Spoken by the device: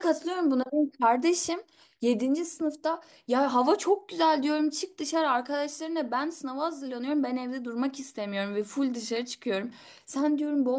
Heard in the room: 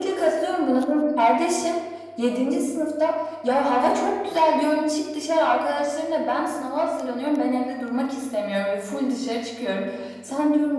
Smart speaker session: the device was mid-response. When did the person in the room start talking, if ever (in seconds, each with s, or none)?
none